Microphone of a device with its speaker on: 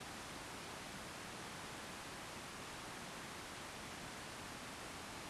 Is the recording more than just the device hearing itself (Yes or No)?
No